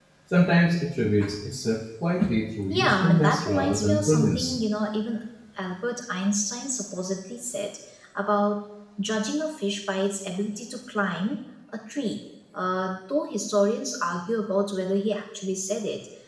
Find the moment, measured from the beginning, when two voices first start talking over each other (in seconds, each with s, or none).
2.7 s